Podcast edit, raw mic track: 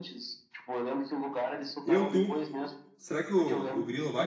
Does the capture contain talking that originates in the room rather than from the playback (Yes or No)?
Yes